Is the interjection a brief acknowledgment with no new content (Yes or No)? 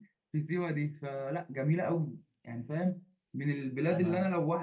Yes